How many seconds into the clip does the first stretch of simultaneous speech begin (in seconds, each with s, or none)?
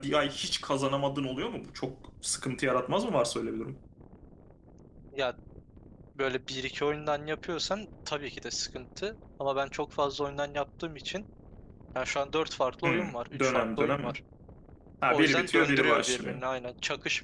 12.8 s